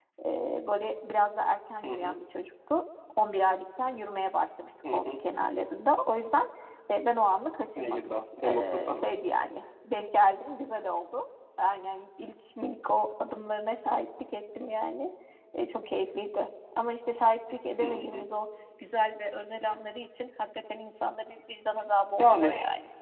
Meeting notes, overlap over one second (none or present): present